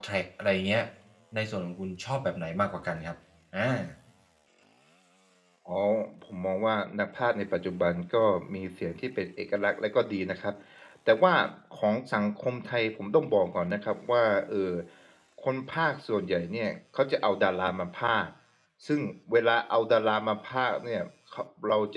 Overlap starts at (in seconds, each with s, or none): none